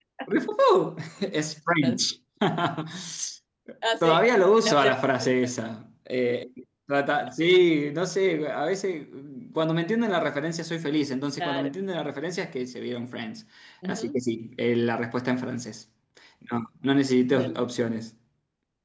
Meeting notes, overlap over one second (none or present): none